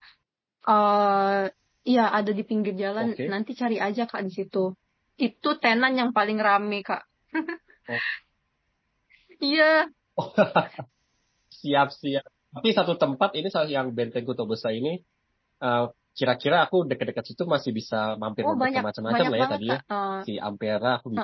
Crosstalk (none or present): present